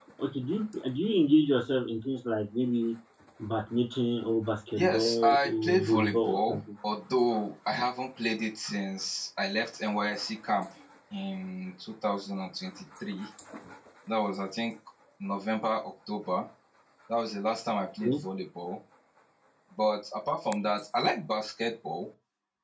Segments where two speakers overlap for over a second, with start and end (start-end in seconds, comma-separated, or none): 4.8-6.6